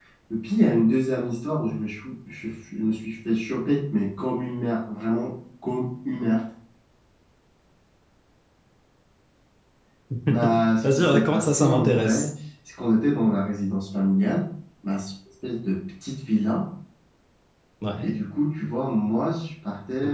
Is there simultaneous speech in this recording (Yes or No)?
Yes